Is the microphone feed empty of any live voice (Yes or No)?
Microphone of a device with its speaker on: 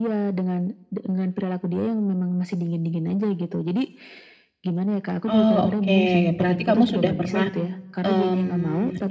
No